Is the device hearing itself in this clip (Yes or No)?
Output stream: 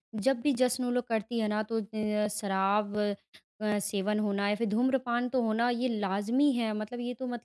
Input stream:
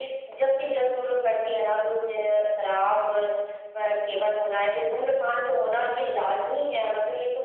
Yes